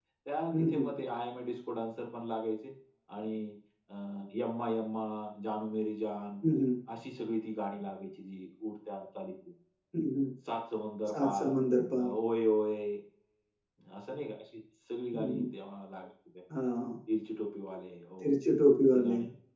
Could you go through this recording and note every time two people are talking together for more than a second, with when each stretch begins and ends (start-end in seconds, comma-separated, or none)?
none